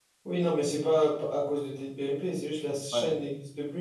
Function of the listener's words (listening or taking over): listening